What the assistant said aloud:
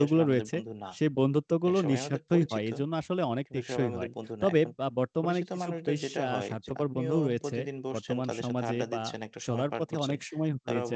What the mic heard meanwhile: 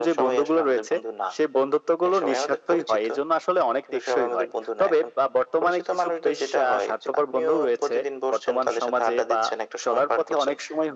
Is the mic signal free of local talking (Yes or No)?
Yes